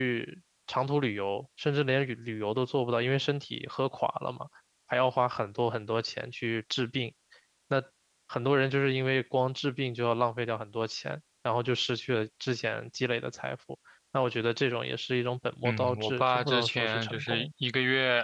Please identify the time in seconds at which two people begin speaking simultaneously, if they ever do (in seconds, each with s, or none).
15.6 s